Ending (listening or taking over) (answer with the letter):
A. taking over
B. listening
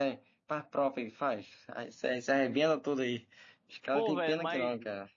A